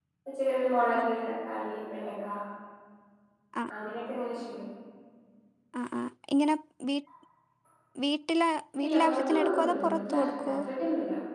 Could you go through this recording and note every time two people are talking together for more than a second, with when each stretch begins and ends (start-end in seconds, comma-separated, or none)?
8.8-10.5